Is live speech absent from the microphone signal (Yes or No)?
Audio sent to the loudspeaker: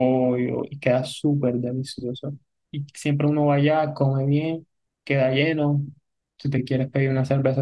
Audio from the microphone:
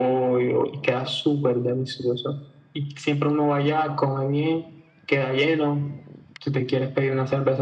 Yes